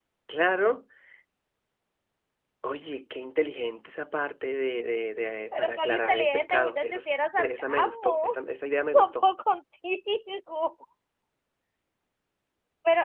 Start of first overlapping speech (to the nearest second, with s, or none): 6 s